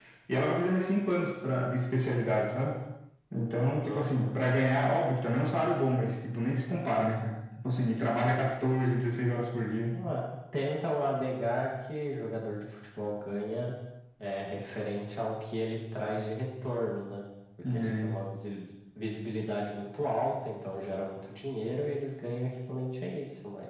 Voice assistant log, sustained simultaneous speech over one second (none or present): none